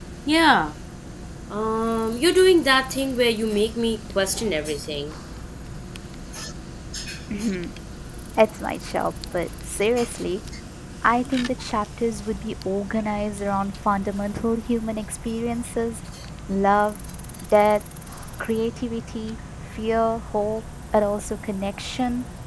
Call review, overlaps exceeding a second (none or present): none